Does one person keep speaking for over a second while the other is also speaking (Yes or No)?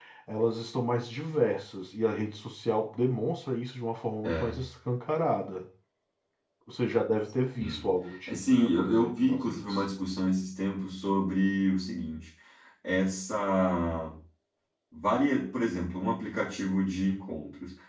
Yes